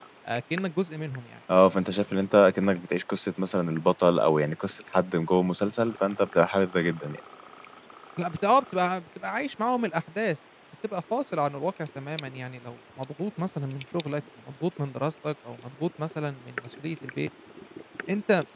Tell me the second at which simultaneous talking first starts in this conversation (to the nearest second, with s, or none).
none